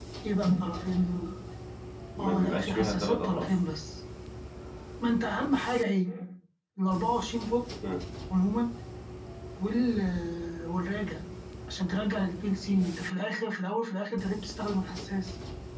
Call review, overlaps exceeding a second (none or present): present